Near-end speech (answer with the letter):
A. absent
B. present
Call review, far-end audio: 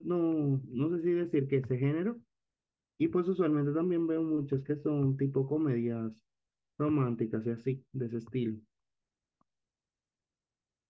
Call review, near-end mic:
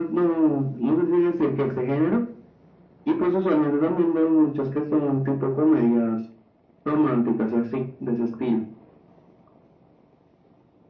A